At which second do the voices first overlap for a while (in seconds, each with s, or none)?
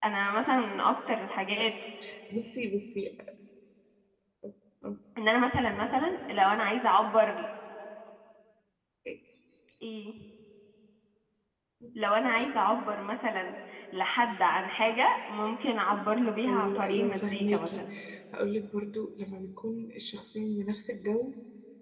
16.5 s